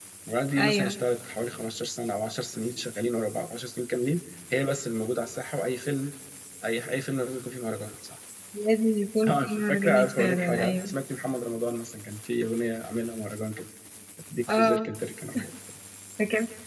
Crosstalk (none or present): present